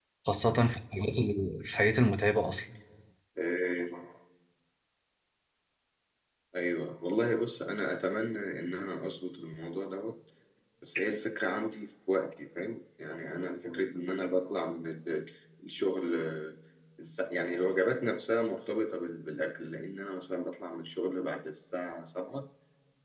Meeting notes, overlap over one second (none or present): none